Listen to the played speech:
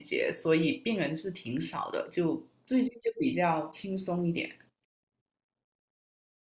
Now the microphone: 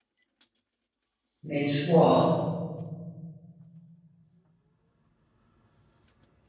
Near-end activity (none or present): present